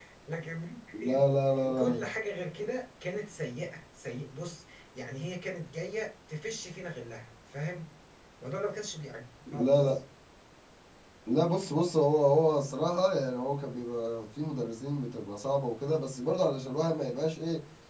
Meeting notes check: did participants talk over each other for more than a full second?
No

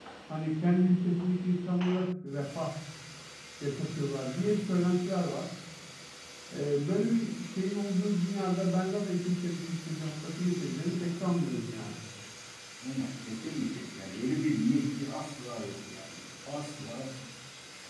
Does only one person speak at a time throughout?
Yes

